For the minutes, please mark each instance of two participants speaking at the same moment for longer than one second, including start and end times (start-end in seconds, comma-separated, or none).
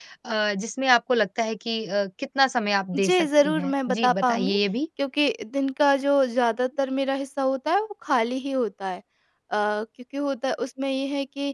3.0-4.6